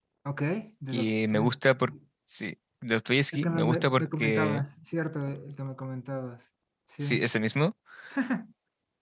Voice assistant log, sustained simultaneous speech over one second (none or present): present